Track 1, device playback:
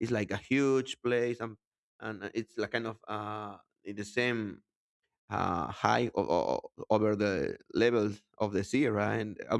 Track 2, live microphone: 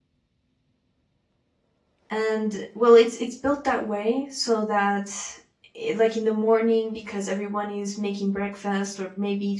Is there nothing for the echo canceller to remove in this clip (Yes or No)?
Yes